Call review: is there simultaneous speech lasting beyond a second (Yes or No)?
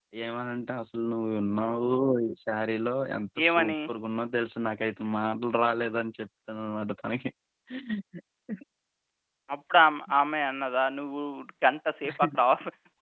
No